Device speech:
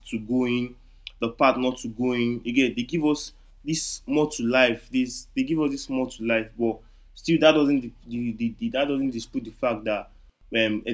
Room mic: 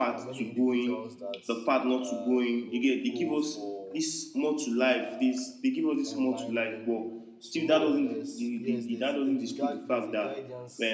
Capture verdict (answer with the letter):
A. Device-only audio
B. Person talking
B